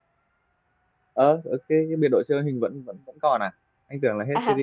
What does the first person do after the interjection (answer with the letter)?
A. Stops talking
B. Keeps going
A